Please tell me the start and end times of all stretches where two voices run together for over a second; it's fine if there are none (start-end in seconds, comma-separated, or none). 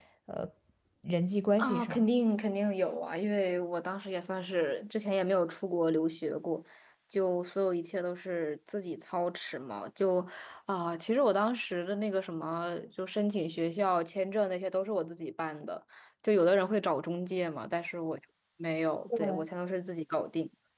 none